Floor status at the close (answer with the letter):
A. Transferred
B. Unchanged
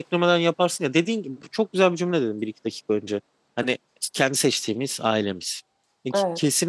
B